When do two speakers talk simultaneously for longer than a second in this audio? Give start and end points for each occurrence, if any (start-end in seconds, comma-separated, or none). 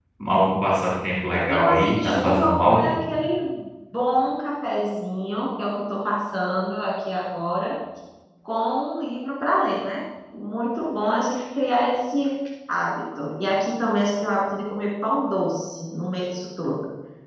1.3-2.9